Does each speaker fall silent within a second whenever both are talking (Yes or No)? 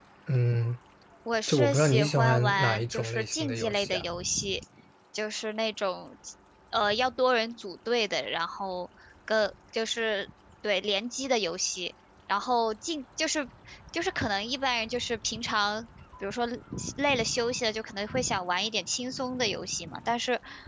No